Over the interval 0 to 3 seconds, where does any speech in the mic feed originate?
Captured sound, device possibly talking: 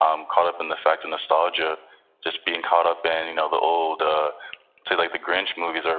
echo only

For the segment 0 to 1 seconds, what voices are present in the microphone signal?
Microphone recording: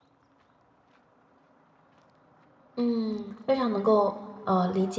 neither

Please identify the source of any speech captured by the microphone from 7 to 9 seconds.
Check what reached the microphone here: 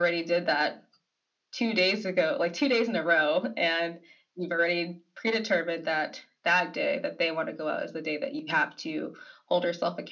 echo only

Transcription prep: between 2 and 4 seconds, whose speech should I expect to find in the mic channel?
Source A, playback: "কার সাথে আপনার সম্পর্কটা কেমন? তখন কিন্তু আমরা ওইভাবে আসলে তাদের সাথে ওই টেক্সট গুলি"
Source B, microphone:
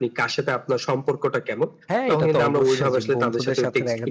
both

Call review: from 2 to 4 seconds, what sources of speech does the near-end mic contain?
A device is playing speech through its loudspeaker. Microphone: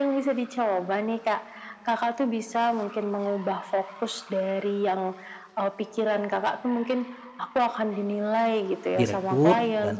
echo only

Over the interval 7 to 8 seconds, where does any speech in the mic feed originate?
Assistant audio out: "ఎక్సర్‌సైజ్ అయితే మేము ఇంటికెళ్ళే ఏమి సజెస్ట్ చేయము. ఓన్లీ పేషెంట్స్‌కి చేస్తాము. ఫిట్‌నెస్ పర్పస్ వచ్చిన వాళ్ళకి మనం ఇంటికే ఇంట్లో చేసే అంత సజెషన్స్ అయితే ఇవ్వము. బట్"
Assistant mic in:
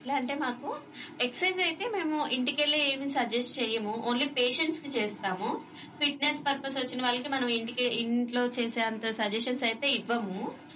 echo only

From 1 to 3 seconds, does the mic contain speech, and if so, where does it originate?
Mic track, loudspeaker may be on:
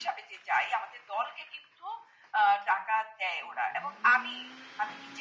echo only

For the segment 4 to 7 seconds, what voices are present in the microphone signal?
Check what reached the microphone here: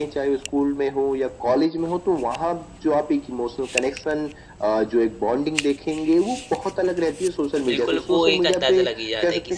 echo only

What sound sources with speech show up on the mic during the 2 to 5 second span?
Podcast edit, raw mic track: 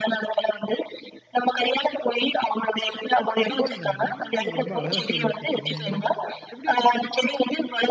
both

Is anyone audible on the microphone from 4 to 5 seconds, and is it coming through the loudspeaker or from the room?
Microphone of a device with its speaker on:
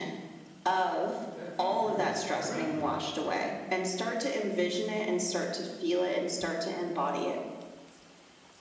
echo only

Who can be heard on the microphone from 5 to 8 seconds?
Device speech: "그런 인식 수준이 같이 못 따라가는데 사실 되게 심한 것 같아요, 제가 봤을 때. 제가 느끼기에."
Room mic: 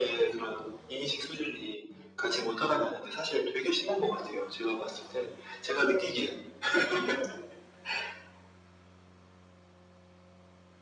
echo only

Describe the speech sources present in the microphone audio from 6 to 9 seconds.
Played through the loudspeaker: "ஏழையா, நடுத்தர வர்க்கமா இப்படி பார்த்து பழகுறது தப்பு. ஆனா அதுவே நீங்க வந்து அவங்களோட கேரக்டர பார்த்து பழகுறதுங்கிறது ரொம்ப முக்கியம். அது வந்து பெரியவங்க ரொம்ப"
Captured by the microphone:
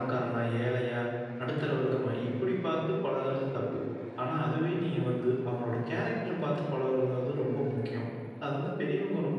echo only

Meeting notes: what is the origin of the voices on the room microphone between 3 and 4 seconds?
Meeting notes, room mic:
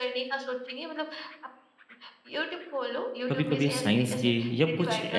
both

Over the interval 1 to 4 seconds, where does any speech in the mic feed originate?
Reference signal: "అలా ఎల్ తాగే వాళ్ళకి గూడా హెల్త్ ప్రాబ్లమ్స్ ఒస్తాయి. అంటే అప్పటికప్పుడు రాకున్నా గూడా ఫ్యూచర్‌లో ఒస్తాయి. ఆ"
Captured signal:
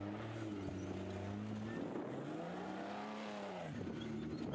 neither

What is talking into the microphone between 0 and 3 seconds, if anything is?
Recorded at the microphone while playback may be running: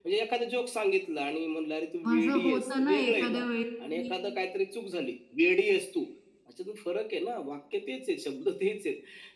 both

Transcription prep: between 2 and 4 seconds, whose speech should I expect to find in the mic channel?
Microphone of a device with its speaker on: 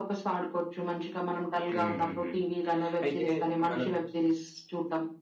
both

